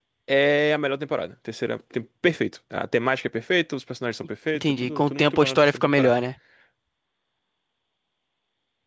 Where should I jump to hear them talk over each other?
4.5 s

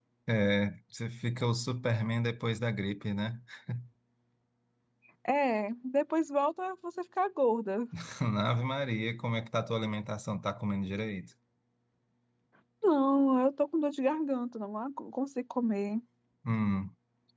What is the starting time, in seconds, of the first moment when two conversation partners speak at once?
none

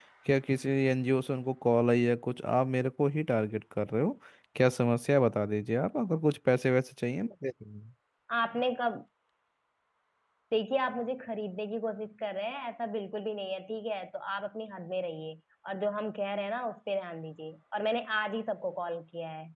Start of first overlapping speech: none

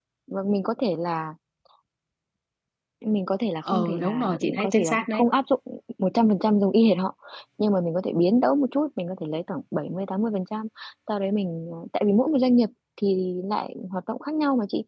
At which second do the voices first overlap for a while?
3.7 s

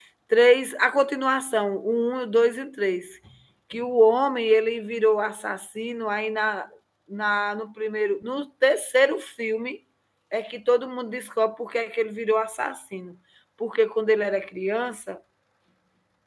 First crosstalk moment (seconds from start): none

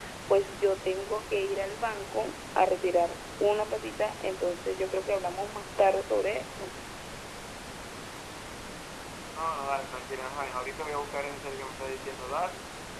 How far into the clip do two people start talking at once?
none

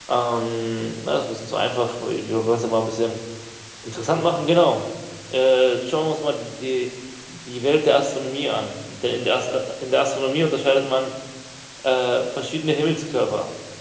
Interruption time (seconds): none

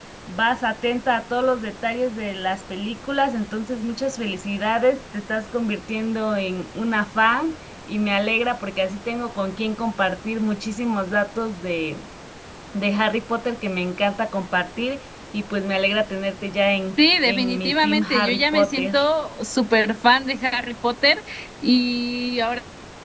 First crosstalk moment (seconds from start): 17.2 s

